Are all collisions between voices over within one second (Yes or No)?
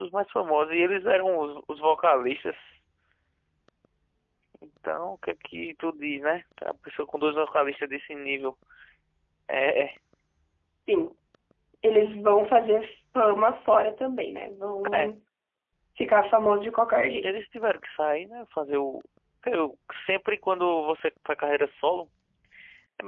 Yes